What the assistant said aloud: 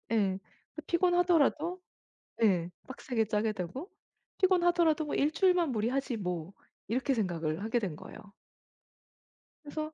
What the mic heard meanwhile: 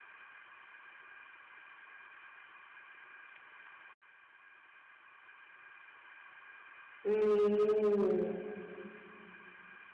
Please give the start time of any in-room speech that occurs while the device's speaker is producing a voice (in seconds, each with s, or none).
7.0 s